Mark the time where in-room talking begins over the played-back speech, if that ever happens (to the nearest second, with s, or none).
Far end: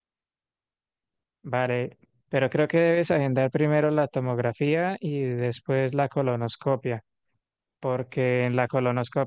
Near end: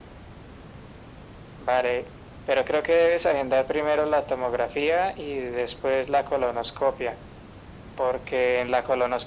none